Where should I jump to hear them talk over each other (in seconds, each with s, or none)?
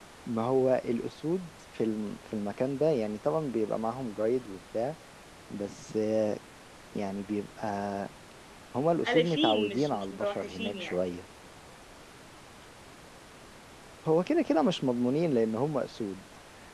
9.1 s